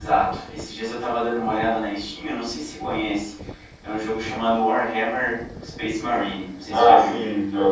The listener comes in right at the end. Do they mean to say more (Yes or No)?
Yes